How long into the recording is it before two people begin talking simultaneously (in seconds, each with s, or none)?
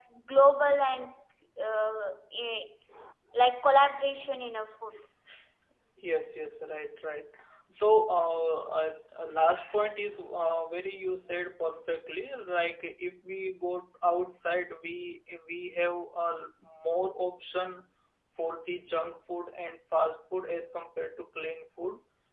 none